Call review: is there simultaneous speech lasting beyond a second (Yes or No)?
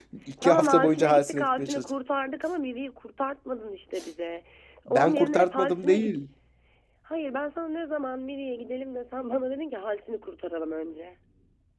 Yes